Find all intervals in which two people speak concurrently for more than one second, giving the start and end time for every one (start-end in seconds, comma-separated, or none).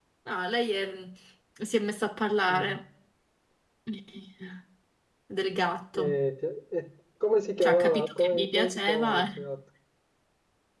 7.6-9.4